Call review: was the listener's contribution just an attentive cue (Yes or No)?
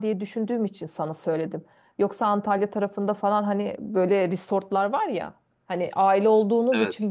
Yes